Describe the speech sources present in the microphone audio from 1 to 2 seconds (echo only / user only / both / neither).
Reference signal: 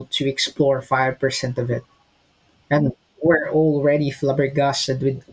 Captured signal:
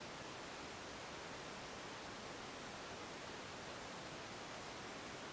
neither